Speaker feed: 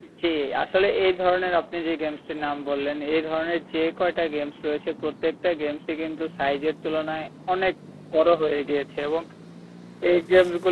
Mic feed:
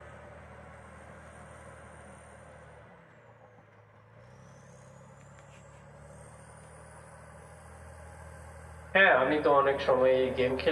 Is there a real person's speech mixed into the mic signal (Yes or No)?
Yes